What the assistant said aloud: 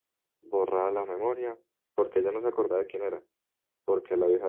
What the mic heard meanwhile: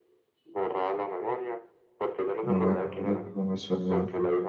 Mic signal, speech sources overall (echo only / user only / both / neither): both